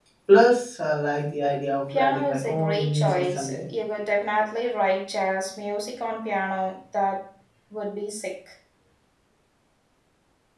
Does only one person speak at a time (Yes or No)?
No